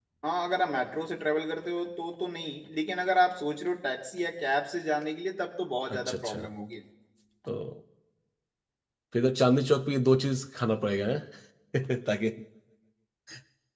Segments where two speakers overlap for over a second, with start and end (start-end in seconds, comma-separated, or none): none